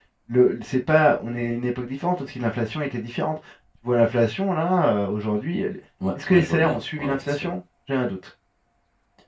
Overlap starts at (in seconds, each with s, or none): 6.0 s